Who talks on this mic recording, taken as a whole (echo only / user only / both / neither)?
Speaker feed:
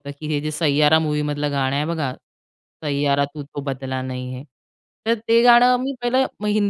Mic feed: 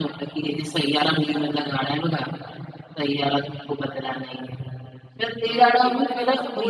both